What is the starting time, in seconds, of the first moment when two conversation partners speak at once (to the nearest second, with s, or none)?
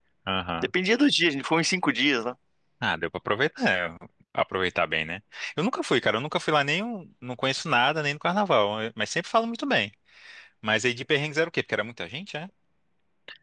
none